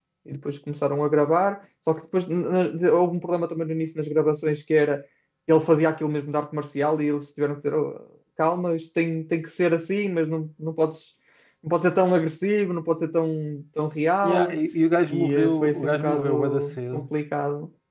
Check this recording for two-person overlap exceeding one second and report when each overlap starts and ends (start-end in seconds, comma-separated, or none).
15.1-17.1